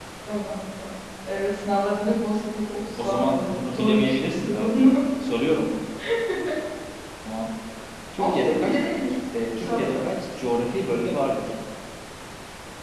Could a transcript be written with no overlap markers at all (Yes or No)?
No